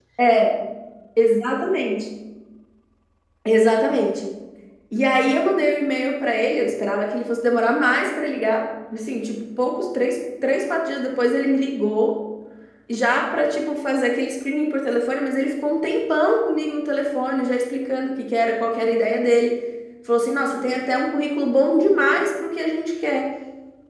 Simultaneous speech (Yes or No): No